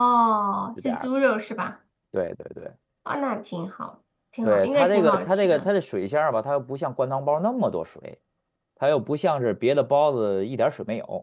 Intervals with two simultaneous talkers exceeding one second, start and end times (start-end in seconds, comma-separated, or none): 4.4-5.7